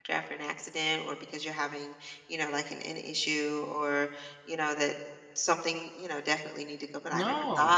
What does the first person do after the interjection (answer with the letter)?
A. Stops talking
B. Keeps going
B